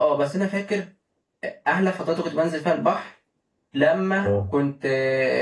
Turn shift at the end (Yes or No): No